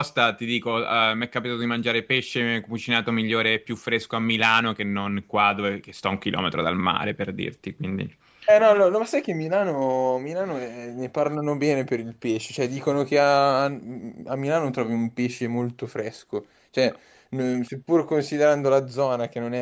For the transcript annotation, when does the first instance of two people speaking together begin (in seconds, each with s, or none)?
none